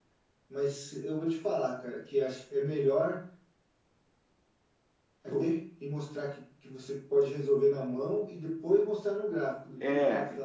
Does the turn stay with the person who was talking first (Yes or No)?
Yes